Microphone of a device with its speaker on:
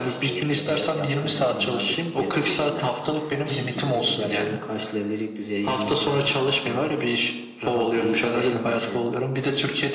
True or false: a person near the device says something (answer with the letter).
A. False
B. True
A